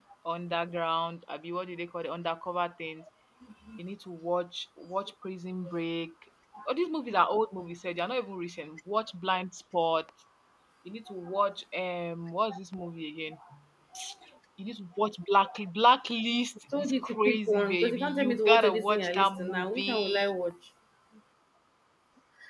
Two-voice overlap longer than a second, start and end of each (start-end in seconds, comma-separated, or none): 16.7-20.2